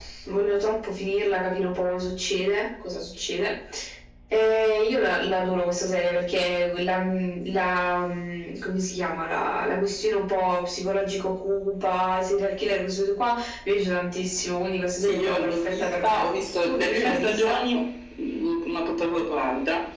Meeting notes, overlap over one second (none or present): present